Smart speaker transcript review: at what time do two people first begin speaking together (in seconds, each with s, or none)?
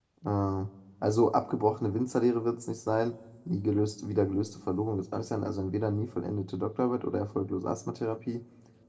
none